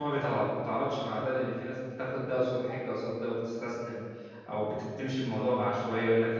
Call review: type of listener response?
listening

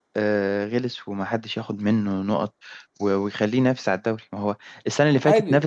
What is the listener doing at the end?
listening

